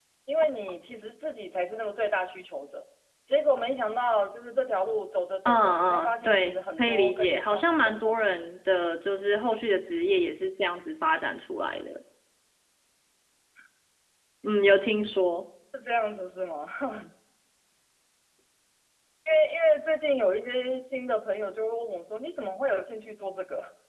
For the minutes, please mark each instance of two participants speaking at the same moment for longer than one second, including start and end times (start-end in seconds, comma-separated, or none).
5.5-8.2